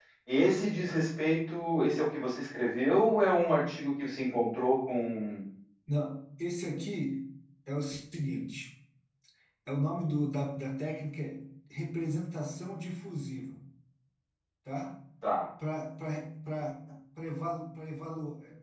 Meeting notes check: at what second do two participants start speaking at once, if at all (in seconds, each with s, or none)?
none